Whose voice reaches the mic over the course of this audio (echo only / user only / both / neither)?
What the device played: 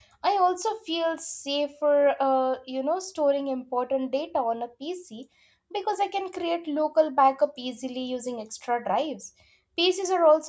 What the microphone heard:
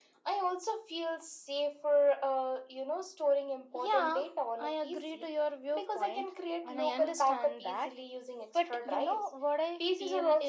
both